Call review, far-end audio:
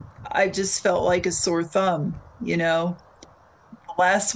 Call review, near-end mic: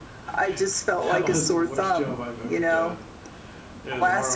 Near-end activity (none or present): present